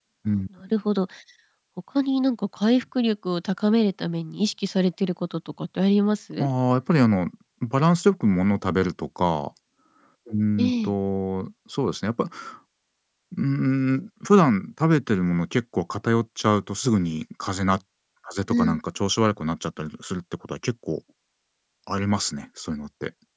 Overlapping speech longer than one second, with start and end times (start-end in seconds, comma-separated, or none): none